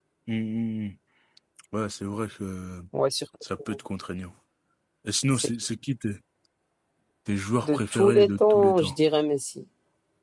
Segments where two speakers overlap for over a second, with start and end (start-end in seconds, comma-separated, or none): 7.6-9.0